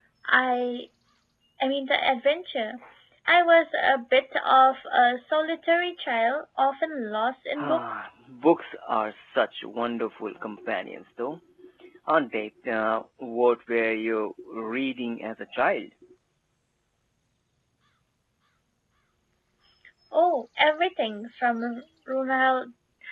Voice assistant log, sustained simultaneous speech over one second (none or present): none